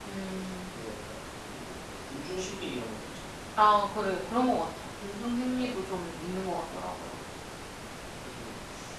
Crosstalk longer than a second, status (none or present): none